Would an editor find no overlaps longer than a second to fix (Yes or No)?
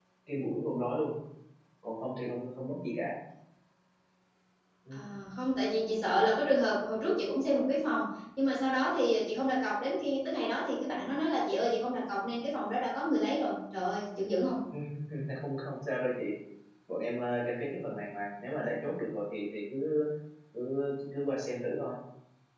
Yes